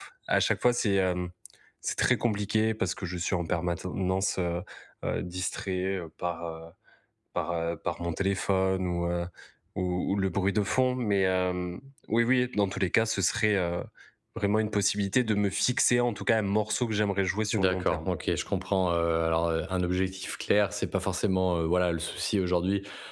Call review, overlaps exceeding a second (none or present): none